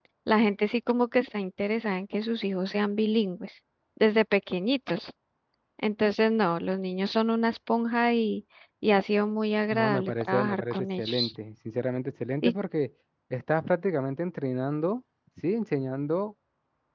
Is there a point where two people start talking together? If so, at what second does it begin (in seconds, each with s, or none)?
9.7 s